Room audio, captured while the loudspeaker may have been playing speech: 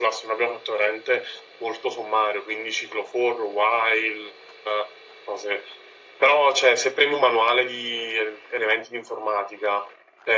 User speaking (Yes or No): No